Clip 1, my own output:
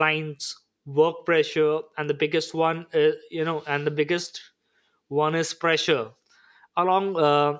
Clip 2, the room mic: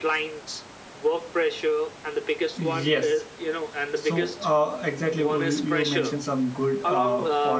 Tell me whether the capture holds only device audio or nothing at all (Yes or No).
No